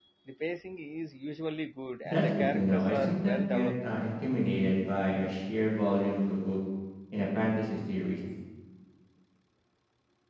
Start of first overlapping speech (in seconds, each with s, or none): 2.0 s